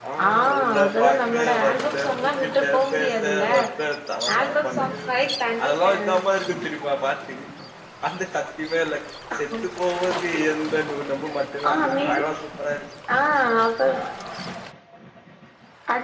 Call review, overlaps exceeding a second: present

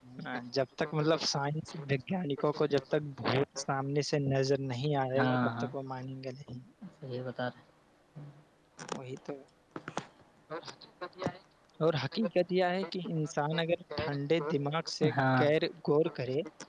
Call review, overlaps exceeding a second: none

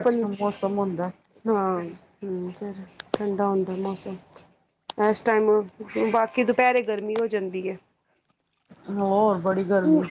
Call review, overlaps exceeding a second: none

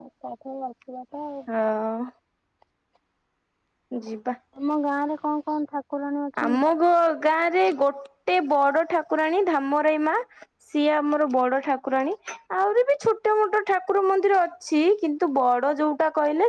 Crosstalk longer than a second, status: none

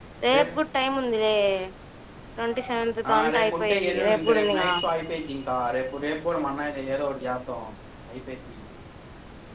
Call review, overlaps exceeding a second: present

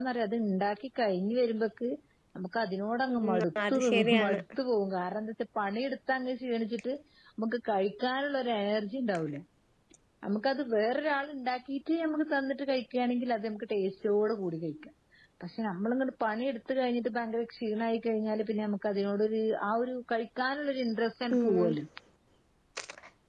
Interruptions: present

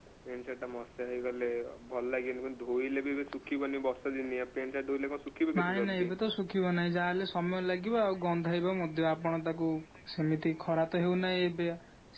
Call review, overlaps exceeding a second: none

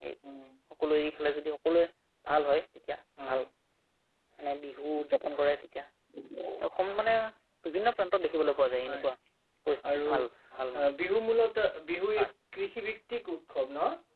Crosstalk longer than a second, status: none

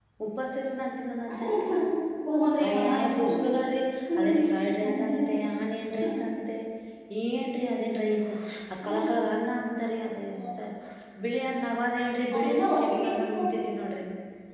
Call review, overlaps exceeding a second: present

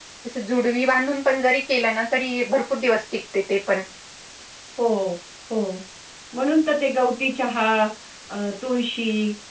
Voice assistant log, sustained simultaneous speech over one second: none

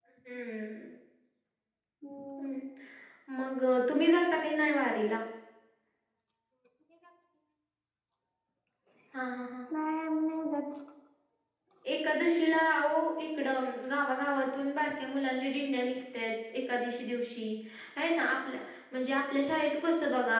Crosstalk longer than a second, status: none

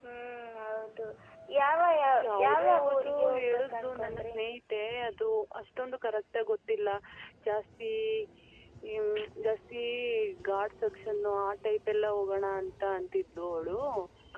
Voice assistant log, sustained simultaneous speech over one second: present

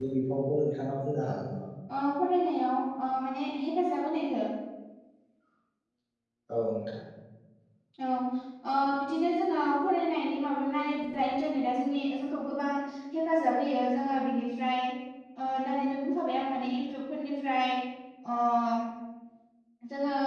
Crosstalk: none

